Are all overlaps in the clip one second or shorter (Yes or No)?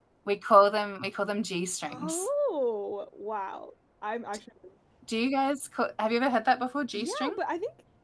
Yes